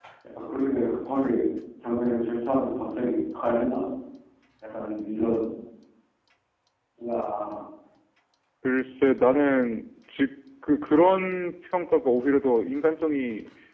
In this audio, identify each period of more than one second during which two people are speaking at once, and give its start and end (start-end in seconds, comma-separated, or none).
none